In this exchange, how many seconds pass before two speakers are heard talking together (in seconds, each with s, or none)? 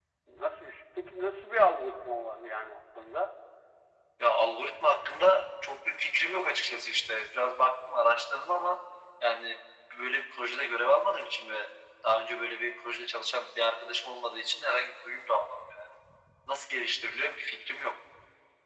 none